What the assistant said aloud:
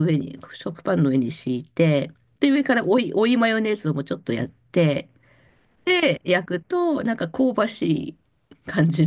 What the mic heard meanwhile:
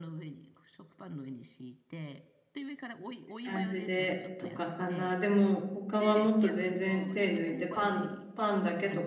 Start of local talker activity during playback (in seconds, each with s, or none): 3.4 s